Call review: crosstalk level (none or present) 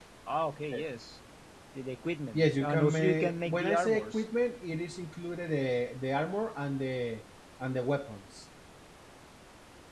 present